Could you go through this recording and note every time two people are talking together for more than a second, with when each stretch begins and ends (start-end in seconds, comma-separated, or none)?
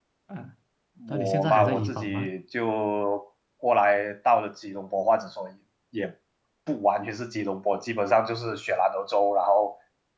1.1-2.3